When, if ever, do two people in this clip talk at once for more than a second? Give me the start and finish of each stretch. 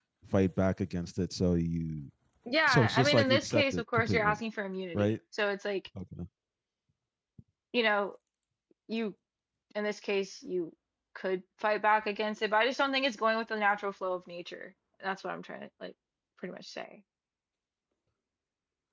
2.7-4.4

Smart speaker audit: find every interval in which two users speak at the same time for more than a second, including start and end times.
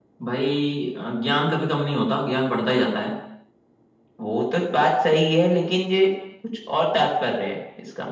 none

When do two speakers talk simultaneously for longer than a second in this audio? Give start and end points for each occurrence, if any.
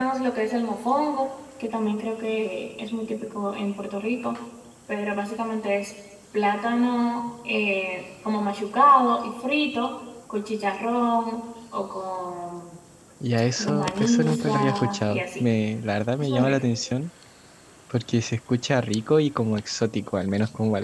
13.6-15.5

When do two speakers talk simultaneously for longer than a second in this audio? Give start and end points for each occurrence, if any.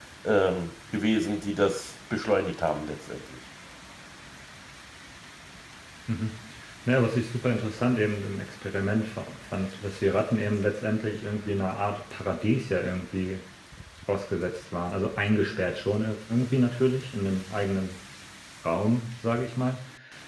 none

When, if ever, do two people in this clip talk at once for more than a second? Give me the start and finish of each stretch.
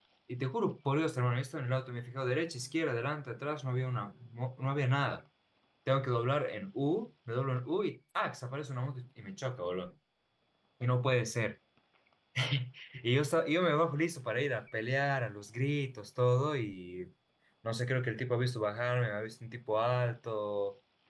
none

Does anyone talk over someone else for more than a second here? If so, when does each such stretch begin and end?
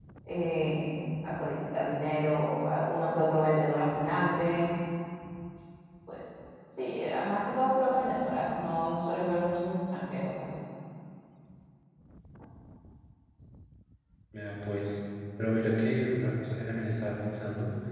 none

